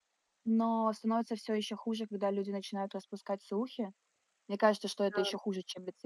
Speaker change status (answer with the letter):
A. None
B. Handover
A